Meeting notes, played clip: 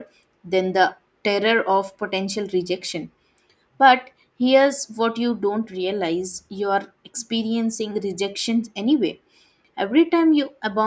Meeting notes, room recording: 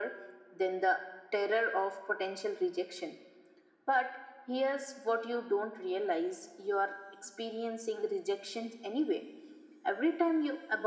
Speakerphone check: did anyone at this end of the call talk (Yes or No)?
No